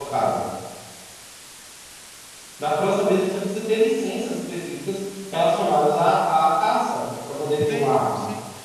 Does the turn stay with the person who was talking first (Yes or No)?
No